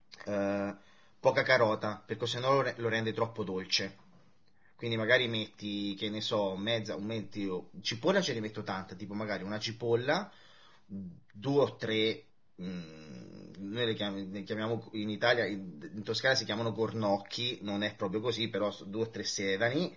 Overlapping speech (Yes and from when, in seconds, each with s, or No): No